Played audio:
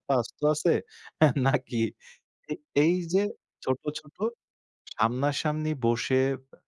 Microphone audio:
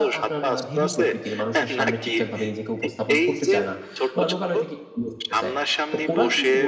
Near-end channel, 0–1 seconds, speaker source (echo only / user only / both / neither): both